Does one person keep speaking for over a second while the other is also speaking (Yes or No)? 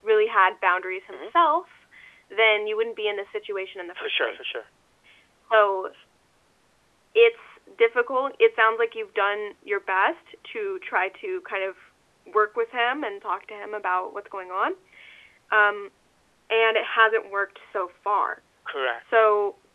No